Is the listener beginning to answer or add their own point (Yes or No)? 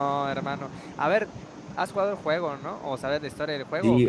Yes